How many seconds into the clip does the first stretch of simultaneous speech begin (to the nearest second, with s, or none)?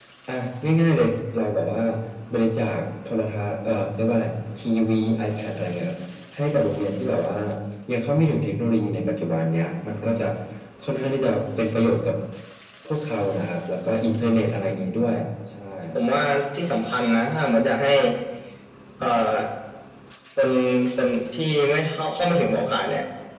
none